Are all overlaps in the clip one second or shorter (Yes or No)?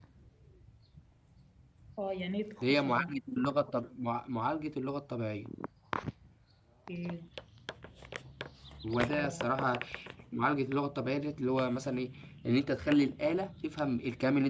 Yes